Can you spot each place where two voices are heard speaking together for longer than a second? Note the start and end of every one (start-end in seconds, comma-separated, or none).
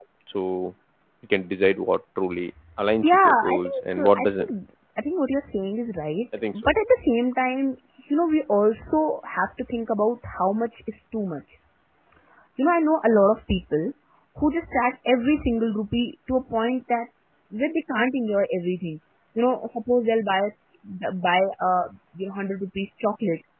3.0-4.6